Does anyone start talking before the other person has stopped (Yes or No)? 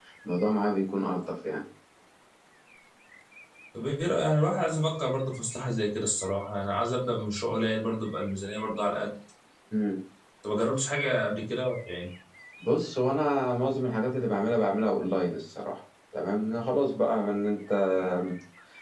No